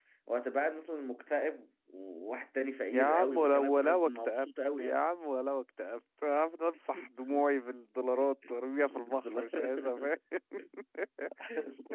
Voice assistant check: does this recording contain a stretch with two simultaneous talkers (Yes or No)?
Yes